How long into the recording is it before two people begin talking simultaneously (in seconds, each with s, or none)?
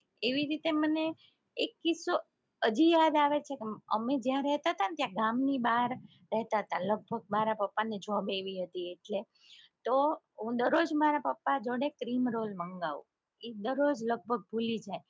none